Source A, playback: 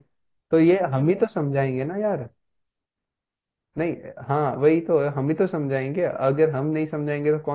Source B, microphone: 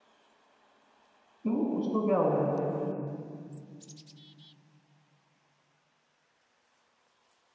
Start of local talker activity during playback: 1 s

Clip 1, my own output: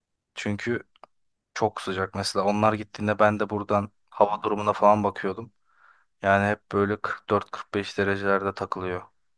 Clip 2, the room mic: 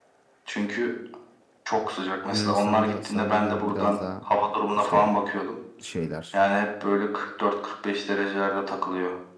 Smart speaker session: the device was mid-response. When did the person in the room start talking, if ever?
2 s

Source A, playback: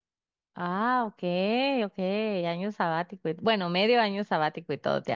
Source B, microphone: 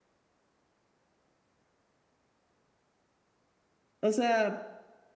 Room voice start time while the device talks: 4 s

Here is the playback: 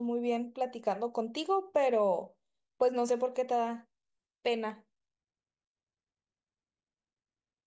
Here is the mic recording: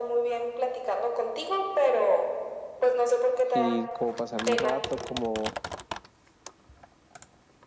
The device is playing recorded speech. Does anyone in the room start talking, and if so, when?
4 s

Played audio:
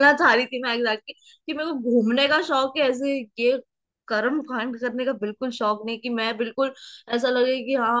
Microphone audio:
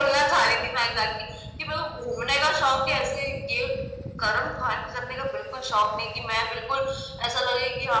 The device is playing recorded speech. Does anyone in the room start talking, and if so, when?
none

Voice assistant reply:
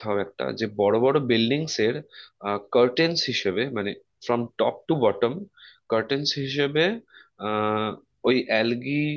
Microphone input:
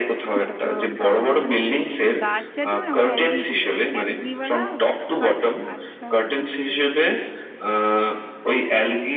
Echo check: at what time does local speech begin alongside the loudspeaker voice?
0 s

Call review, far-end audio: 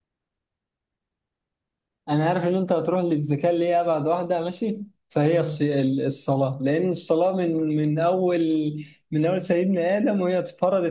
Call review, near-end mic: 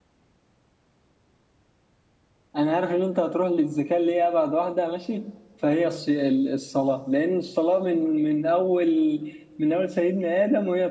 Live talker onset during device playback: none

